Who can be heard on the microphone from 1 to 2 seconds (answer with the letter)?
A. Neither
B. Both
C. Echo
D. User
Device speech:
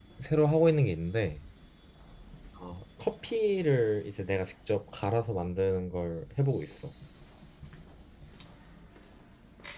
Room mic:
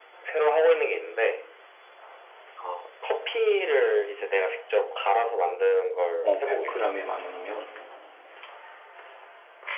C